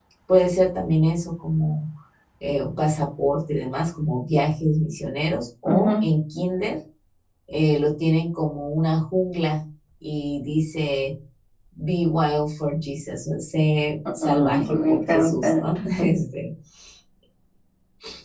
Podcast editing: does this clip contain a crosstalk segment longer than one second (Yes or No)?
Yes